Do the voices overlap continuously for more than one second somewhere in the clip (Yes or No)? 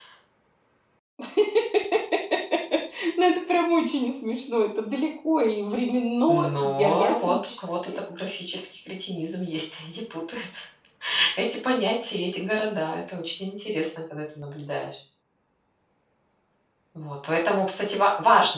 Yes